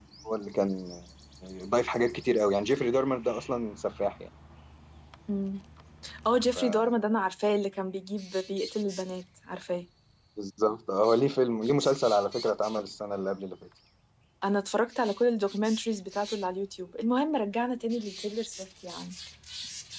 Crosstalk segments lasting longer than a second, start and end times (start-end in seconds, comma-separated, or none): none